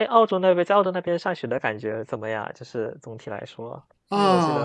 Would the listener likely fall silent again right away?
No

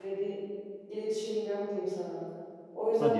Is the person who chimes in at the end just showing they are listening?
Yes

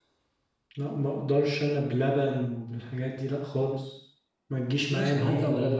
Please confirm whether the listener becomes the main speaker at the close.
Yes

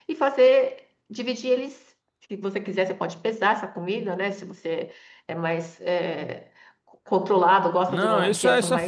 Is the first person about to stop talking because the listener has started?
Yes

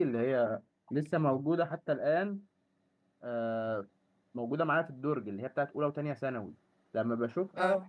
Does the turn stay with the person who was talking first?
Yes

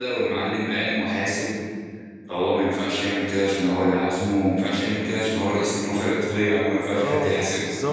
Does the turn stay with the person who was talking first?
No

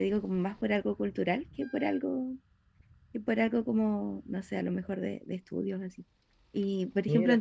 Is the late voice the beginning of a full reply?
No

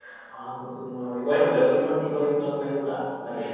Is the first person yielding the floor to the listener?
Yes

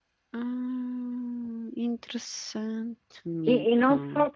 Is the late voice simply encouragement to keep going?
No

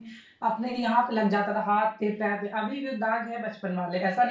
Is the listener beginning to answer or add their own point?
Yes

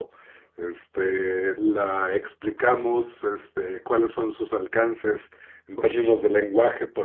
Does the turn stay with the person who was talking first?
Yes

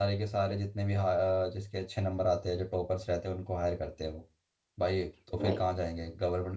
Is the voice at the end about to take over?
No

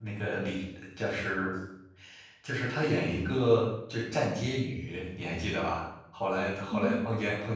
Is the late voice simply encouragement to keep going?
Yes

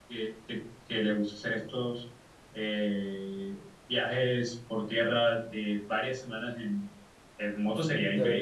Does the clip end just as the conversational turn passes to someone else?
Yes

